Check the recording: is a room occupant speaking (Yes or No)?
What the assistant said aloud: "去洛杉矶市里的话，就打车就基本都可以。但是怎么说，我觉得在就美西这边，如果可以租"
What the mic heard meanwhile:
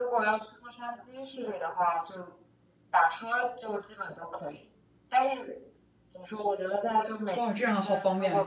Yes